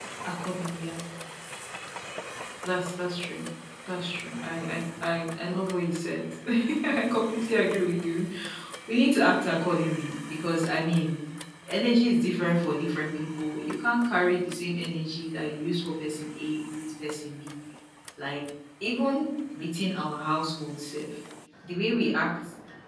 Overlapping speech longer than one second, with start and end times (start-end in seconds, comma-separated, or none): none